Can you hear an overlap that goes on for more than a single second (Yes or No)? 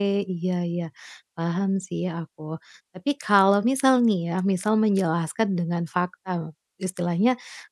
No